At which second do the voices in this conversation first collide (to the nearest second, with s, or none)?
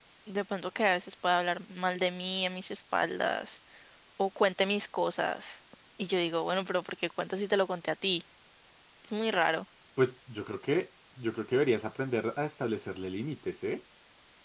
none